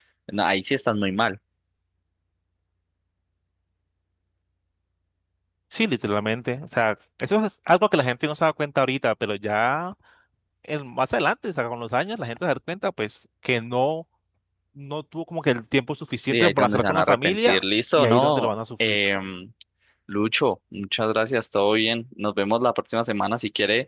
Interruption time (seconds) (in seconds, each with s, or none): 16.3 s